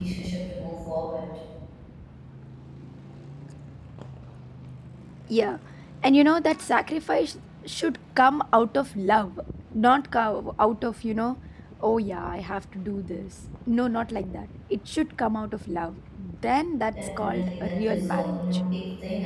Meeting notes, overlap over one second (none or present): present